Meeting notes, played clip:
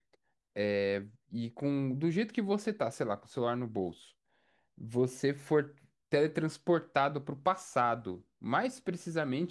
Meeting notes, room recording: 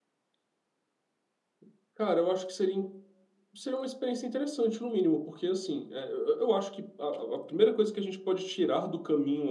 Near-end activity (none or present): present